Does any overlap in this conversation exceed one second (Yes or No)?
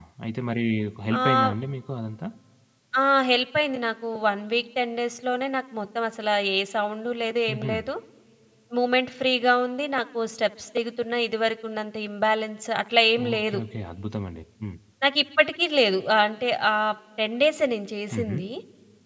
No